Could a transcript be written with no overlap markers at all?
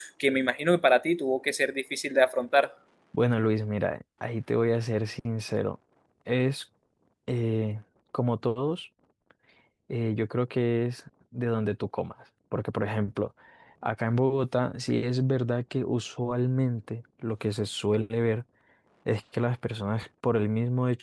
Yes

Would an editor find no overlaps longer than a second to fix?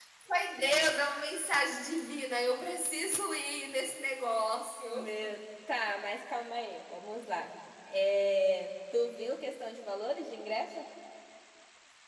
Yes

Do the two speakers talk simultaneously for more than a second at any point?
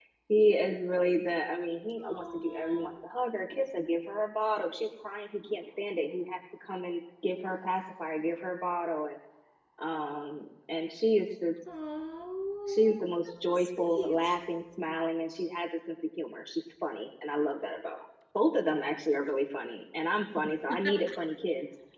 Yes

